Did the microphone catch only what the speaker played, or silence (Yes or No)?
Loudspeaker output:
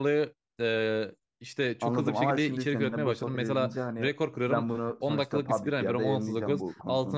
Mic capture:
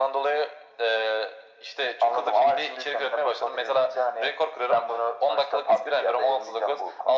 Yes